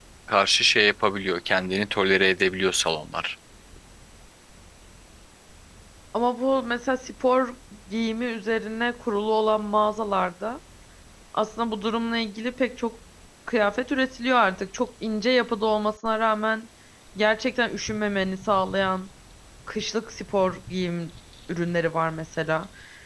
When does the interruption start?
none

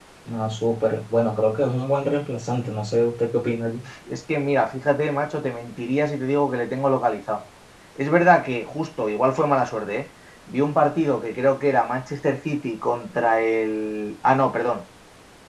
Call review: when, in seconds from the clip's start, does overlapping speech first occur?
none

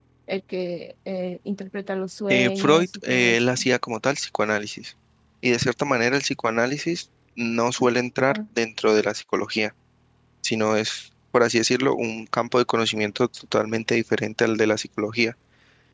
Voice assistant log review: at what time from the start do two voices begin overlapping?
2.3 s

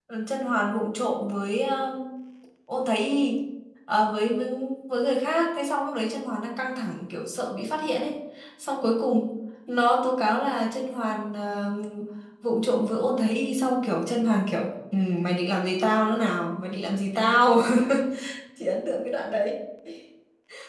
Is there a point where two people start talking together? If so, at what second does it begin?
none

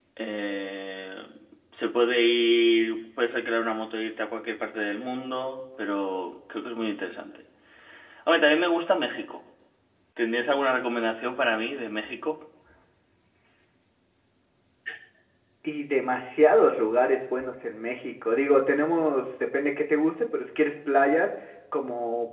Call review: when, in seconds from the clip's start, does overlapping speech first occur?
none

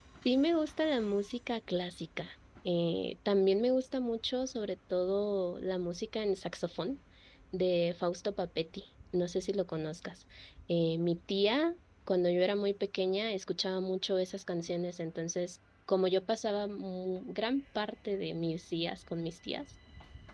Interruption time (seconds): none

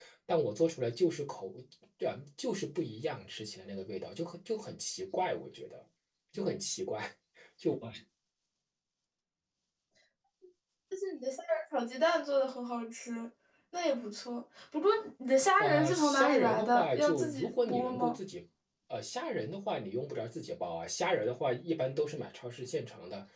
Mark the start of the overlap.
15.6 s

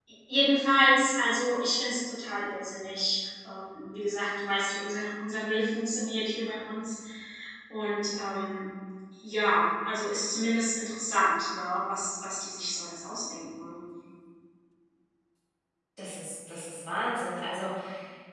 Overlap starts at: none

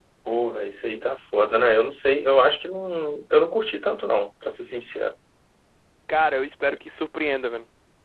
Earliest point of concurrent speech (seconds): none

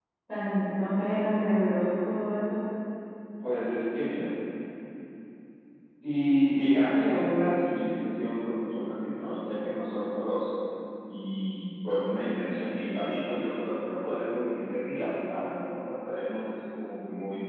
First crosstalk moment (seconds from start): none

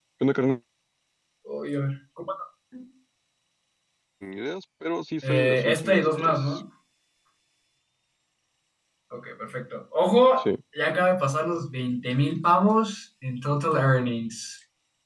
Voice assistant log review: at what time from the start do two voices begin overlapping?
5.2 s

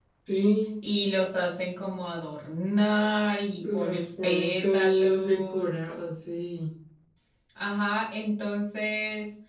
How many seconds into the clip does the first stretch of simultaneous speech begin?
3.6 s

